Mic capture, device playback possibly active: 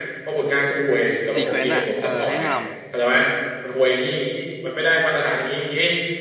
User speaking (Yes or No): Yes